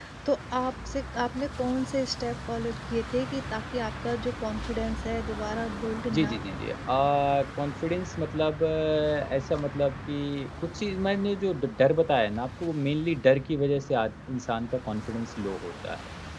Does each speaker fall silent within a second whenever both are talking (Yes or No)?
Yes